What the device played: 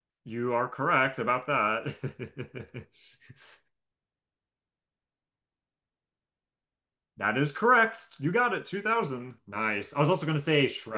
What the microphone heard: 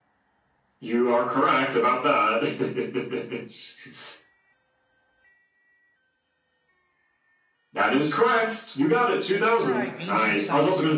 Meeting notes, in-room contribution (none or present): present